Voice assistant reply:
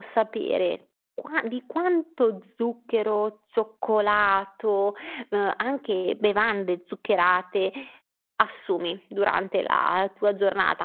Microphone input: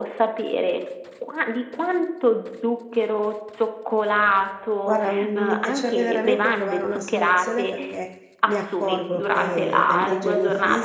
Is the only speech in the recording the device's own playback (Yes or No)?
No